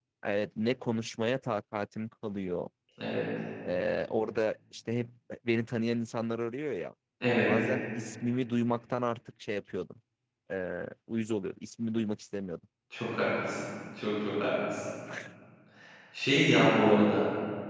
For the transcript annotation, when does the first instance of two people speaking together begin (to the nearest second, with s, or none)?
none